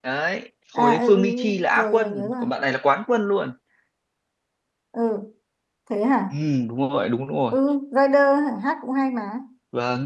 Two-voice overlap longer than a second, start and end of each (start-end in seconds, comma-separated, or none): 0.8-2.4